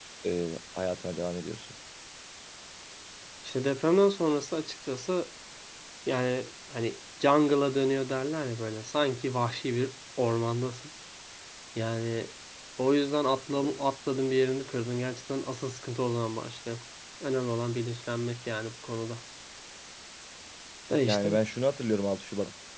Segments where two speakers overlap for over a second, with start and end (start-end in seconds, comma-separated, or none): none